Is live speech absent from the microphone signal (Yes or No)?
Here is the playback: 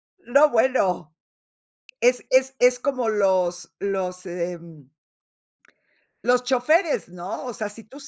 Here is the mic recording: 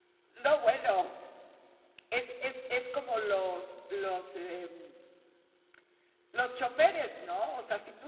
Yes